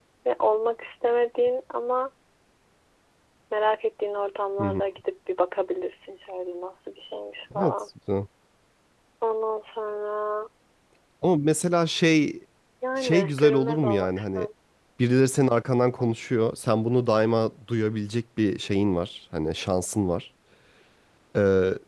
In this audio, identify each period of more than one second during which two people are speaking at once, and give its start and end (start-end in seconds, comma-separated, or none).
13.0-14.5